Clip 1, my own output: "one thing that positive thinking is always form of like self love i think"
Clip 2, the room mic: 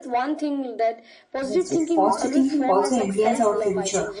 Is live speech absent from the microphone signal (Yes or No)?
No